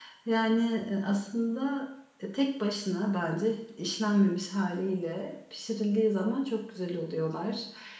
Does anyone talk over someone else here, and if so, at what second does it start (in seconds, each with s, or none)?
none